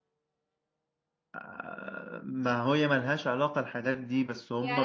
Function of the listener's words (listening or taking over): taking over